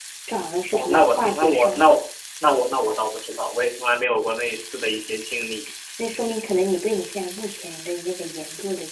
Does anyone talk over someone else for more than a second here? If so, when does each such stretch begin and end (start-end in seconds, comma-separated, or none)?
0.7-1.9